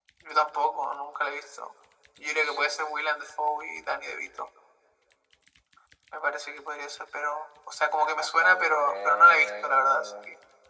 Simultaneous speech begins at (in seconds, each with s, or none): 8.0 s